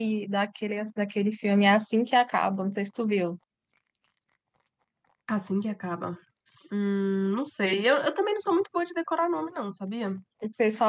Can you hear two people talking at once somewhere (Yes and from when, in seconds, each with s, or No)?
No